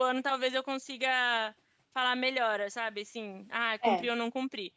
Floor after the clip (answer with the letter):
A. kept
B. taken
A